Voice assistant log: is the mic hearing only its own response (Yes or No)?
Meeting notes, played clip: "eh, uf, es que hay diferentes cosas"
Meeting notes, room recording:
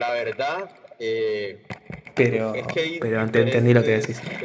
No